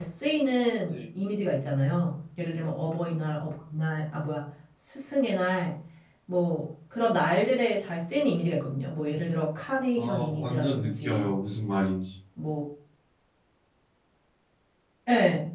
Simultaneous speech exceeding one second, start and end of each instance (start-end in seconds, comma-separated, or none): 10.0-11.4